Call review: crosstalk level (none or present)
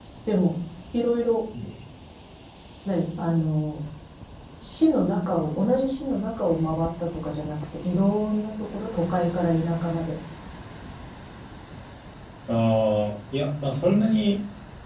none